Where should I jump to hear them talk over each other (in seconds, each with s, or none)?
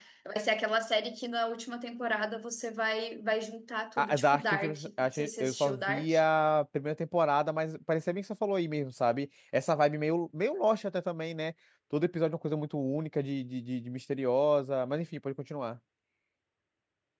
4.0 s